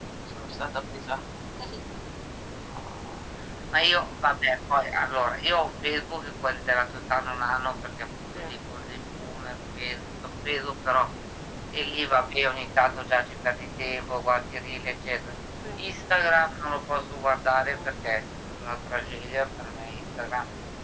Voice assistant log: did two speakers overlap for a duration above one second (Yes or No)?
No